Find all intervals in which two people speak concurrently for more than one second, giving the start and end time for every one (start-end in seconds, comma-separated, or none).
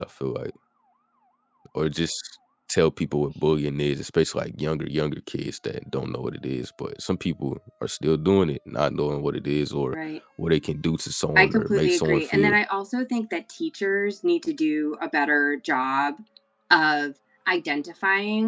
11.4-12.6